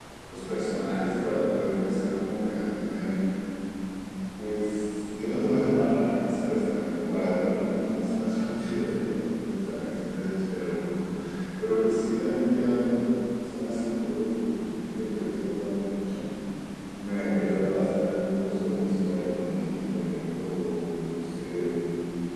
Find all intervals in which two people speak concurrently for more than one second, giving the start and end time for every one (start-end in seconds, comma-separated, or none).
none